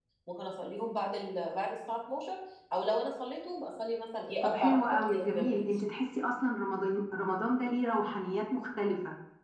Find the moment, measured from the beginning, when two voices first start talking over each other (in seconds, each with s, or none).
4.4 s